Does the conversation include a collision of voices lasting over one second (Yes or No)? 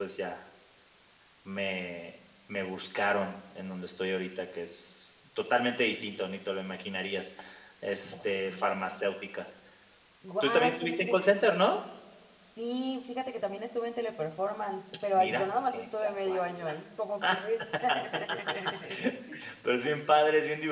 Yes